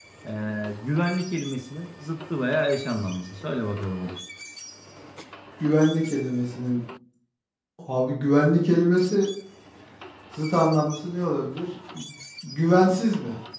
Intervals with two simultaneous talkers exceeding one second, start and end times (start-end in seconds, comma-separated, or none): none